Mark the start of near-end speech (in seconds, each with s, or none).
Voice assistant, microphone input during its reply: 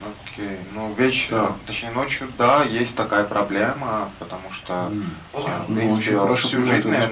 5.3 s